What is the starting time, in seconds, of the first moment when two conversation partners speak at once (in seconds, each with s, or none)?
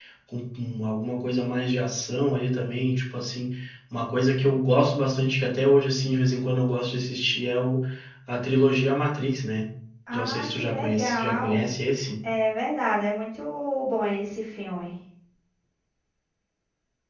10.1 s